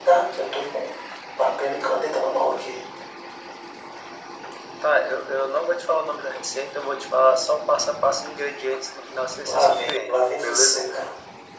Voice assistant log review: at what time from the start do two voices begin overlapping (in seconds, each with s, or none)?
9.4 s